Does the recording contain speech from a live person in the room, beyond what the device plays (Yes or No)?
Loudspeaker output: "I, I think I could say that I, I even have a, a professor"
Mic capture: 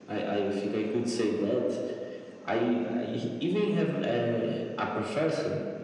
No